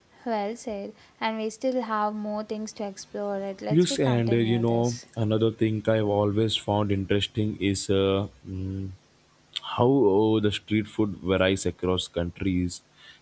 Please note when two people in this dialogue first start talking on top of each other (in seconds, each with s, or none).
3.7 s